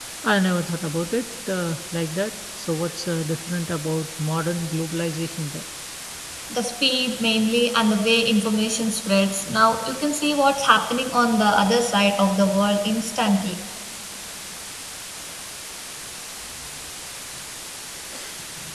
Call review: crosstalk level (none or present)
none